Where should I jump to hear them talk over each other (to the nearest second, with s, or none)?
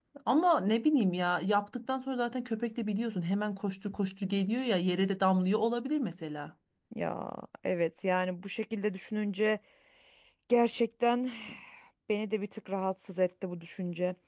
none